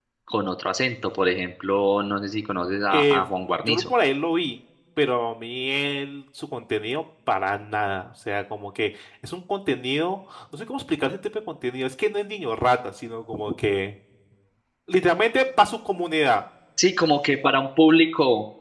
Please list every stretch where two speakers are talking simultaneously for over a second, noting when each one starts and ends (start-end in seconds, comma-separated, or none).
none